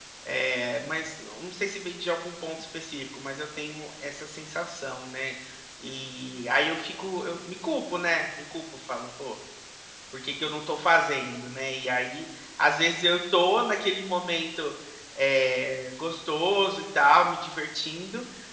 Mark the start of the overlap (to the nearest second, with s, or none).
none